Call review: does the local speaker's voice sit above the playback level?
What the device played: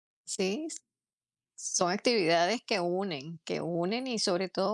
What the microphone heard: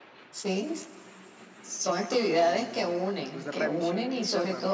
No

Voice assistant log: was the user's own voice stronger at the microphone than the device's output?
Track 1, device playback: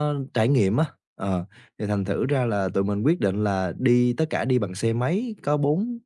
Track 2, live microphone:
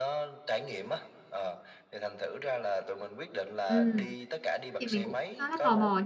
Yes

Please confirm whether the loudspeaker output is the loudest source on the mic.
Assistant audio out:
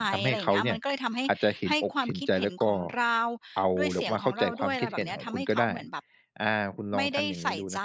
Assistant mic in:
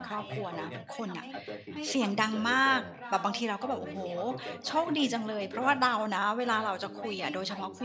No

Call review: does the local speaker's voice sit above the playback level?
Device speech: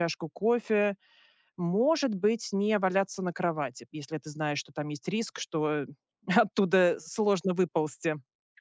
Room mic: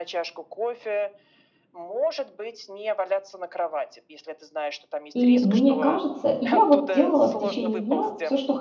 Yes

